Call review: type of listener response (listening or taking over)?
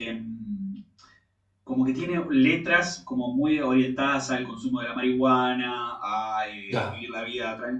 listening